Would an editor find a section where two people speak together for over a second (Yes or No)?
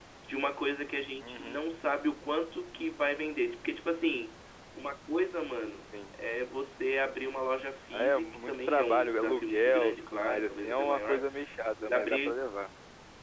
Yes